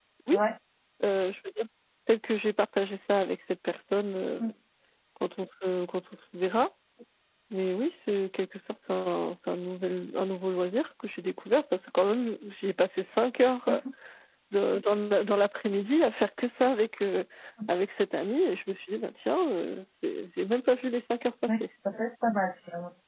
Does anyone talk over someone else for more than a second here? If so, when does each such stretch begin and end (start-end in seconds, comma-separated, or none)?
none